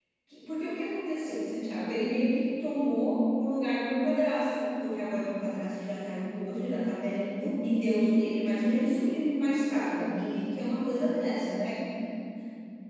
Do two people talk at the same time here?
No

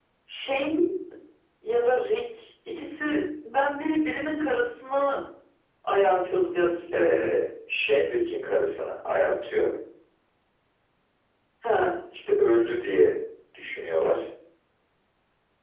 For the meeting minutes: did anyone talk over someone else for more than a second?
No

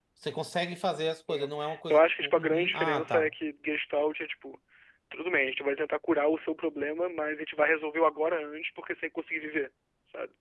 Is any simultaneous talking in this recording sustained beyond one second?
Yes, from 1.3 s

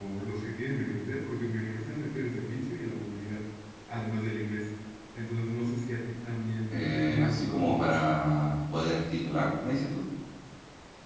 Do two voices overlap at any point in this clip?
Yes, from 6.7 s

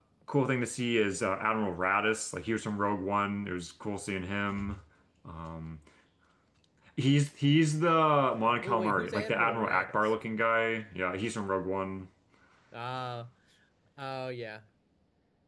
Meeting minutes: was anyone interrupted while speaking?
Yes, from 8.6 s

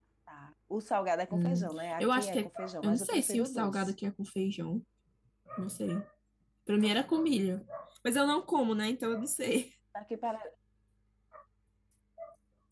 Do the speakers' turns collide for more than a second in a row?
Yes, from 1.3 s

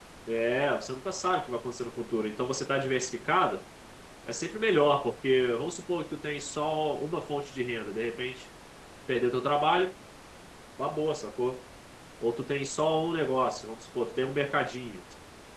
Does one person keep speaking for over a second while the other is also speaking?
No

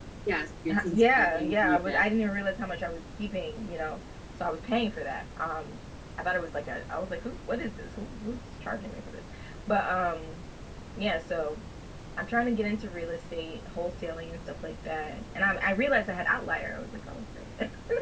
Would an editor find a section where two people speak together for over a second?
Yes, from 0.7 s

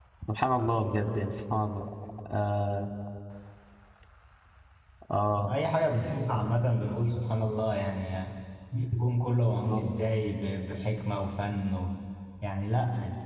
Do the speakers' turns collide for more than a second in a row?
No

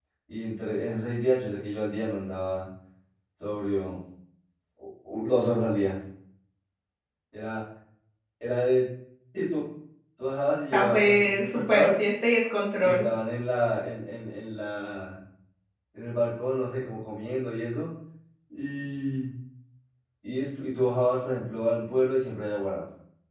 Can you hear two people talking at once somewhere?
Yes, from 10.7 s

